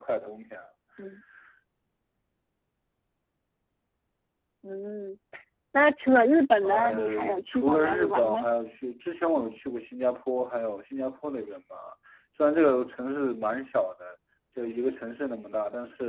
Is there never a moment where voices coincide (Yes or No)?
No